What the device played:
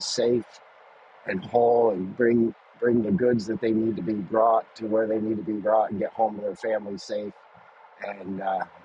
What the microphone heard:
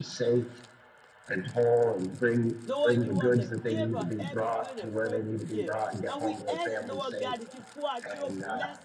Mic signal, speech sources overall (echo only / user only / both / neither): both